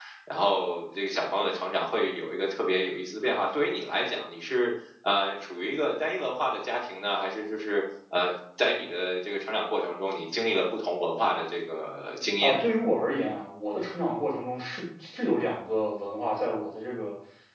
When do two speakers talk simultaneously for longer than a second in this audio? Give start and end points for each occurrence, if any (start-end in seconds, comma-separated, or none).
none